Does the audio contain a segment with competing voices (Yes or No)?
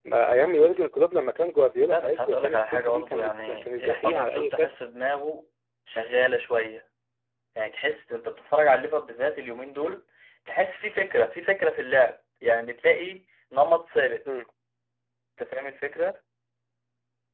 Yes